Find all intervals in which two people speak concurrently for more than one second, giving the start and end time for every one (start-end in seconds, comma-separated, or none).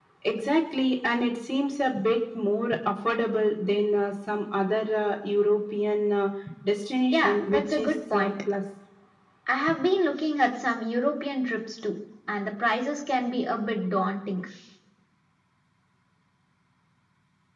7.1-8.3